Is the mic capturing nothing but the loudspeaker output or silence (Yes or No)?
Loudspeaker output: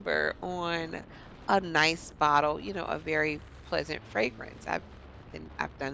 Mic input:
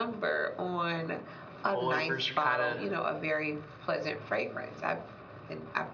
No